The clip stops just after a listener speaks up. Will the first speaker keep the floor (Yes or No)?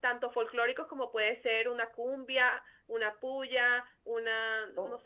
Yes